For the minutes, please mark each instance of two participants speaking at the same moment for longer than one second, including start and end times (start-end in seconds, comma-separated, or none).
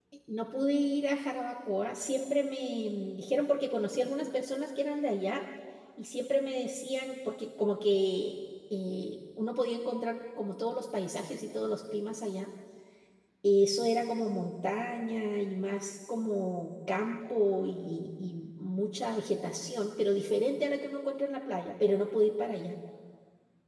none